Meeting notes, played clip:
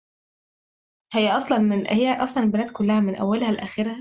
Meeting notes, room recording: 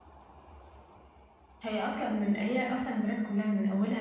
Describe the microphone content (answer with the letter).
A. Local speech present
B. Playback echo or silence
B